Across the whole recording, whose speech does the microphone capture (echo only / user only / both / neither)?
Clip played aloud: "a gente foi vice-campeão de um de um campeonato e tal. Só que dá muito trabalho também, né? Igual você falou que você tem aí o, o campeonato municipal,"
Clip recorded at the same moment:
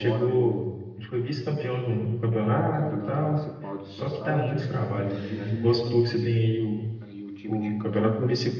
both